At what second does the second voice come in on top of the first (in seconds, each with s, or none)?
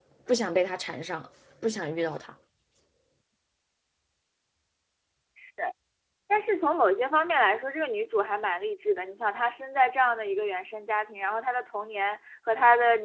none